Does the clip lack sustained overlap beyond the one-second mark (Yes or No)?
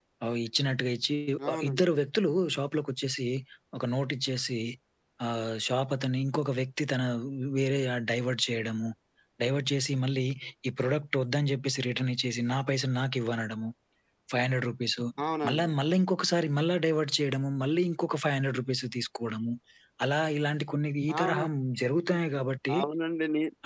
Yes